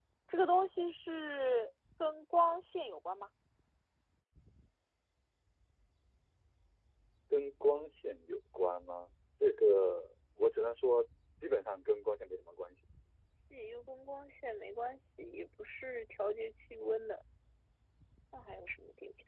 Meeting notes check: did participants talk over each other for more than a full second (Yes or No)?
No